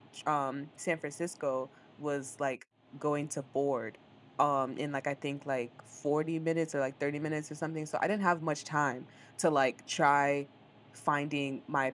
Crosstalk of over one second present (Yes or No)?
No